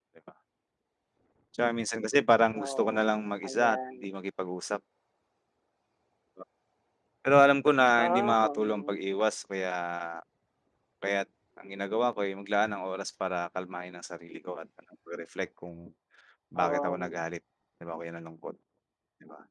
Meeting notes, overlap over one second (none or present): present